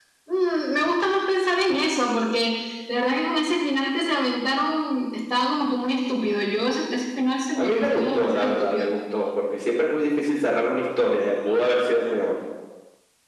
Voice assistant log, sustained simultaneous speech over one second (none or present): present